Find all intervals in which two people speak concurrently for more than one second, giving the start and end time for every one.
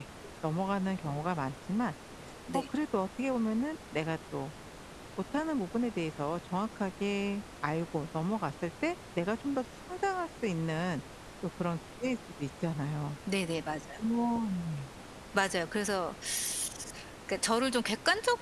none

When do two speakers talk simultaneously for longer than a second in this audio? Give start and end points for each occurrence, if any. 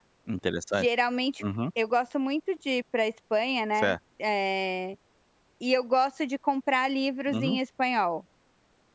none

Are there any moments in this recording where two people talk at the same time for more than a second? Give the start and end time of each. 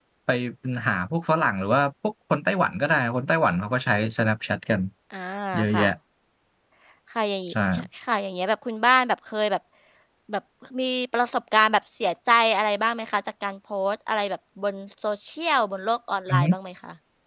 none

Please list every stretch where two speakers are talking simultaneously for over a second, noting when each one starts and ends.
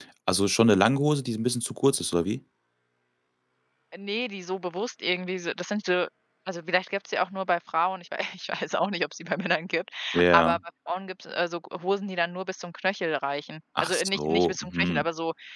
13.8-15.1

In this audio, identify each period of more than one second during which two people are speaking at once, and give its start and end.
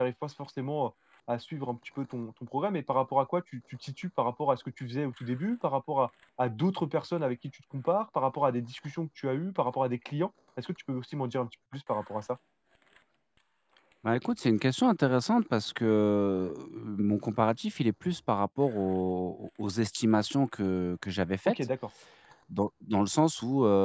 none

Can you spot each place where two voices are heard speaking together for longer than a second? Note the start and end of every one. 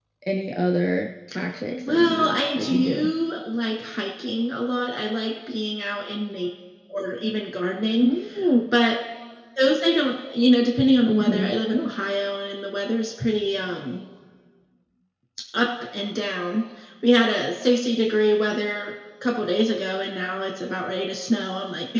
1.7-3.1

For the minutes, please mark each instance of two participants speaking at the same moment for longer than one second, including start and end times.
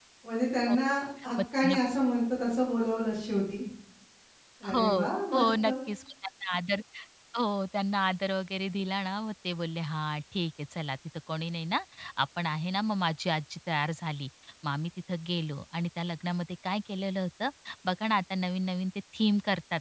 none

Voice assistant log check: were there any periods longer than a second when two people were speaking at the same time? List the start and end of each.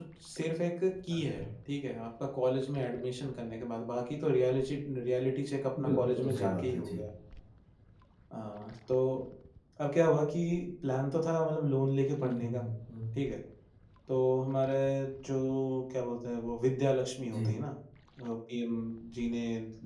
5.8-7.0

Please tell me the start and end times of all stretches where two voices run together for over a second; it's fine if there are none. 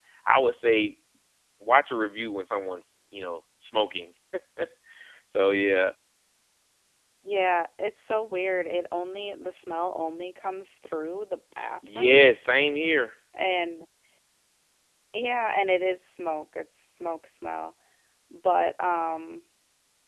none

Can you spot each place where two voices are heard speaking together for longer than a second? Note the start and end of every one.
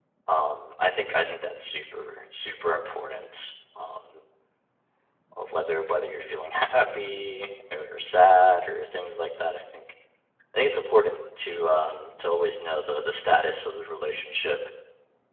none

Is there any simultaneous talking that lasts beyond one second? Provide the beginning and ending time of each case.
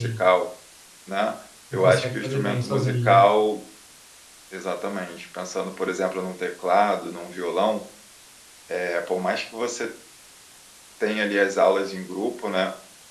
1.7-3.2

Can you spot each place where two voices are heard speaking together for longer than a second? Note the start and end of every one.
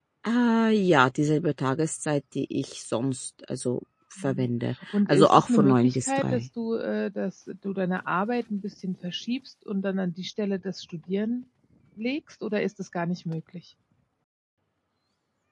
5.1-6.4

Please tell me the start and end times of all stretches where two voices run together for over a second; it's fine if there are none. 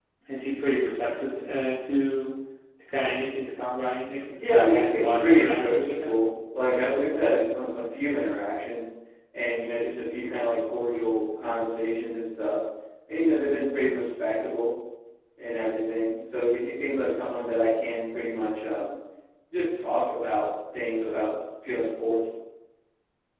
4.3-6.1

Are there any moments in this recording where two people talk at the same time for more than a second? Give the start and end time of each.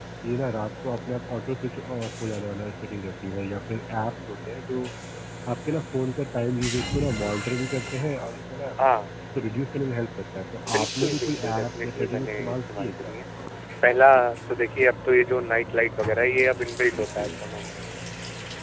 10.7-13.1

